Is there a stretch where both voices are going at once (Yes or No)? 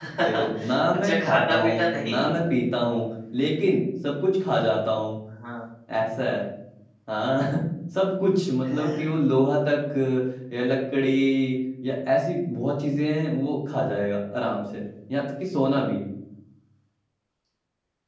Yes